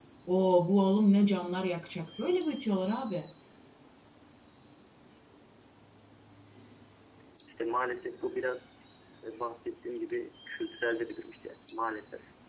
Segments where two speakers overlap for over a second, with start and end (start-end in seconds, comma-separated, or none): none